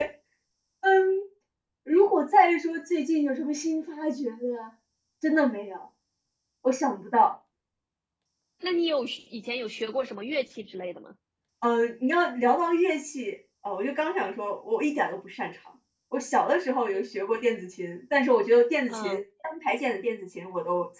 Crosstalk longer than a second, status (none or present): none